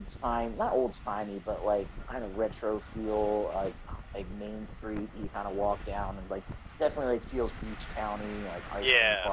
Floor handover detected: Yes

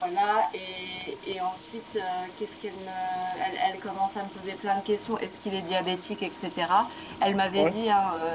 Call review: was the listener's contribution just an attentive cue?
Yes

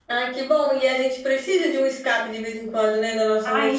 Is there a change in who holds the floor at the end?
Yes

